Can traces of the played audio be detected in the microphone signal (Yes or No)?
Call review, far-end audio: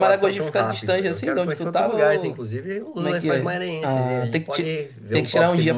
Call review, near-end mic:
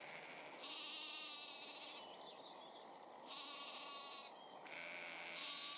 No